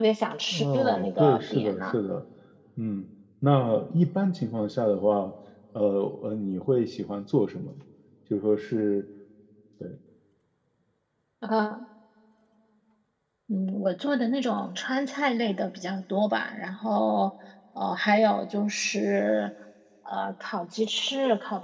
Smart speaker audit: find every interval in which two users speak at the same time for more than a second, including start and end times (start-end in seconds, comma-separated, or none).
0.5-1.9